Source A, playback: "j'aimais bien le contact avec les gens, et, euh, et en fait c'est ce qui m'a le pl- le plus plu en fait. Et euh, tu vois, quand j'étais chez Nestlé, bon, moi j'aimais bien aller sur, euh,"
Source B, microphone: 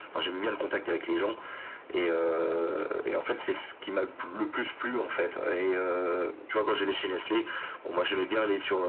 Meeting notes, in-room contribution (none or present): none